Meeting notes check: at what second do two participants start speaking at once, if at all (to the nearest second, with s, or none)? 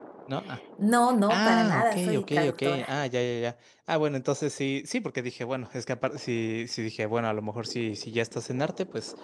1 s